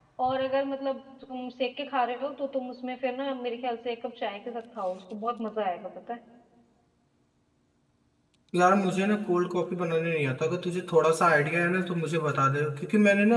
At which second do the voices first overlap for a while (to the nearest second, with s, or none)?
none